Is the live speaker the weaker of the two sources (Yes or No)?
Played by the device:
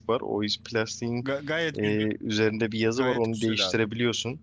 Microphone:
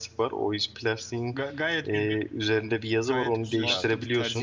Yes